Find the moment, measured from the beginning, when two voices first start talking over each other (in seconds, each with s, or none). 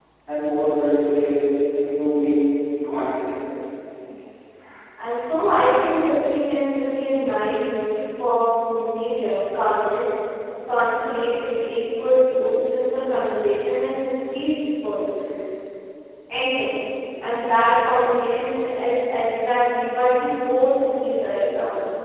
none